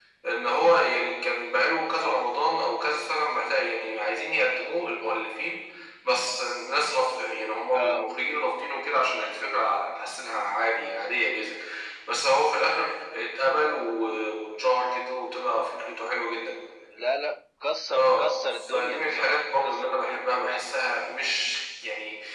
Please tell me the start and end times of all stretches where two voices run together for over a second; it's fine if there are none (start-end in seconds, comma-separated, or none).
17.9-20.2